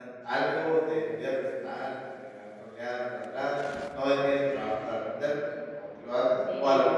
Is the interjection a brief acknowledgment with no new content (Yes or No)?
No